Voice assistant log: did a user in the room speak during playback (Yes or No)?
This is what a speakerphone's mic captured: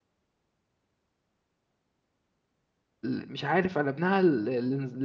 Yes